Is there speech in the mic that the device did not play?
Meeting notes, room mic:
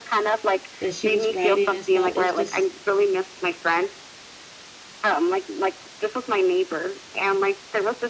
Yes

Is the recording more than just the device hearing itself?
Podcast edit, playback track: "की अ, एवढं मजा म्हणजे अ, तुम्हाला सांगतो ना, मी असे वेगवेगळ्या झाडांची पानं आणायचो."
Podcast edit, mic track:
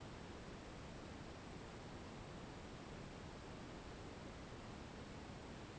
No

